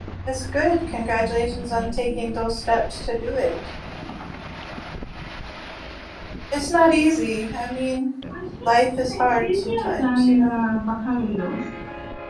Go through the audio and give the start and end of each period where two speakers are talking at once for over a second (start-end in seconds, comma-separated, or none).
1.1-2.5, 9.2-10.6